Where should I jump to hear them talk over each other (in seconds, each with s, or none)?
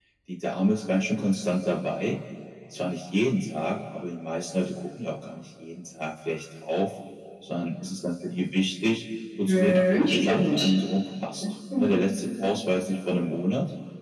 9.5 s